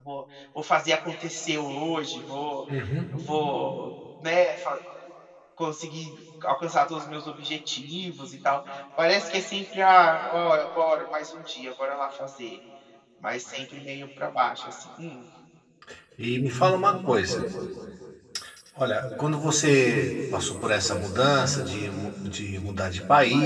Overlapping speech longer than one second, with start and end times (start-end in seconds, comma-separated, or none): none